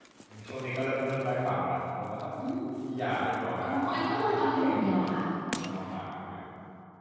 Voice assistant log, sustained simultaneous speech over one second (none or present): present